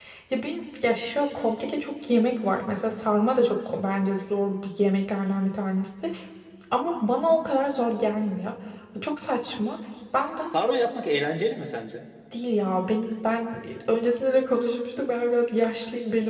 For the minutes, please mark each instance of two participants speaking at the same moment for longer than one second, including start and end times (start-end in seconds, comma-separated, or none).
none